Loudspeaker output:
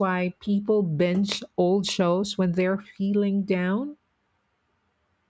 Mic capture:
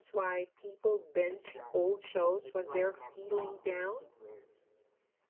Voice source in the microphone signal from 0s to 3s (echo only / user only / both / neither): both